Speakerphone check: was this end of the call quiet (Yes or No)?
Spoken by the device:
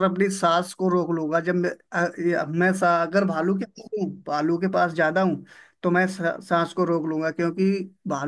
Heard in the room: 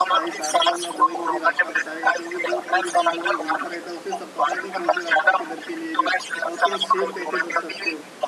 No